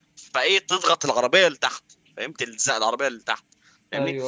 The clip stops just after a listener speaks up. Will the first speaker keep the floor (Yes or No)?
Yes